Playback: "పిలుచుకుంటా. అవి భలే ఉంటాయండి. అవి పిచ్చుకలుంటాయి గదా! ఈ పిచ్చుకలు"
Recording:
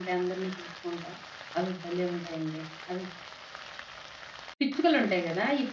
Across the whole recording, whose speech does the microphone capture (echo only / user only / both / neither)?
echo only